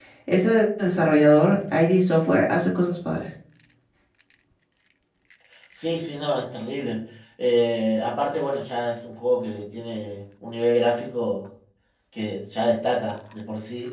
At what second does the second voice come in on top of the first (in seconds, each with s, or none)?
none